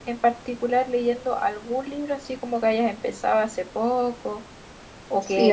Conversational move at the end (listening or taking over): taking over